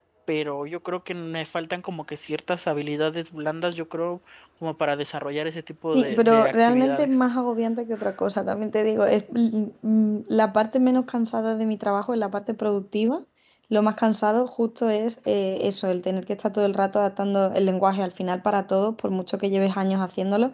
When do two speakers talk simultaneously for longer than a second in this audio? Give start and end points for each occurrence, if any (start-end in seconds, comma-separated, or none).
5.9-7.2